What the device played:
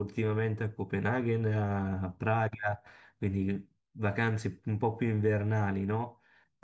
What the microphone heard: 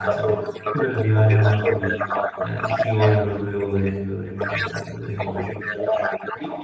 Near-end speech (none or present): present